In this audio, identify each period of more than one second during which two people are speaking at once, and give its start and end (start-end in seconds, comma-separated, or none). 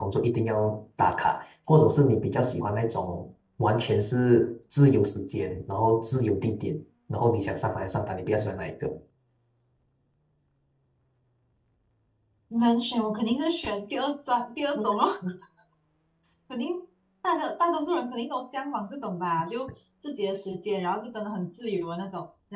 none